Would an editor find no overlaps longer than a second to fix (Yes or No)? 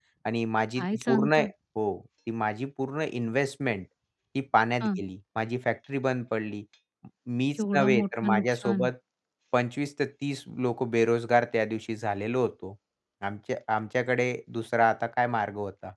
No